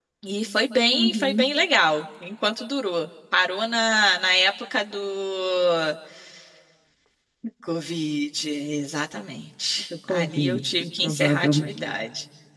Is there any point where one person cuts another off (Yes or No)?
Yes